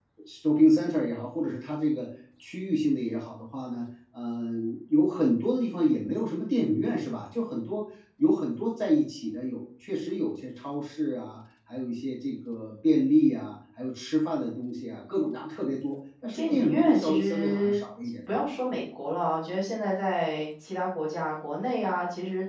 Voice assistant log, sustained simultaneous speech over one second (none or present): present